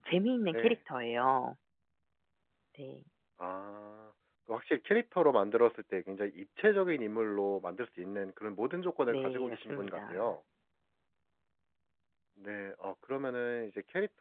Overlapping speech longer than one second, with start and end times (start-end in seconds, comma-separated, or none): 9.1-10.3